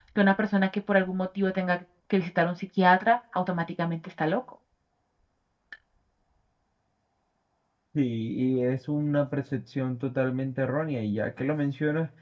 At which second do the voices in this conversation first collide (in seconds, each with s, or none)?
none